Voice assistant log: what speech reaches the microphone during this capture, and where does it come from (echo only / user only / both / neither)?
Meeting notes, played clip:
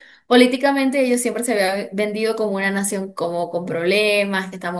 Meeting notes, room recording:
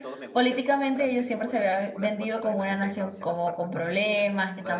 both